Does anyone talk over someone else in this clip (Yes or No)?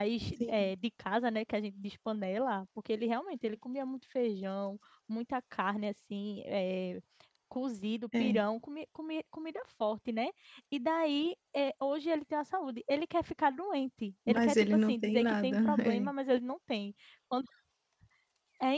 Yes